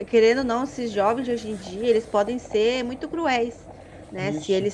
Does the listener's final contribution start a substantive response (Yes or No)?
No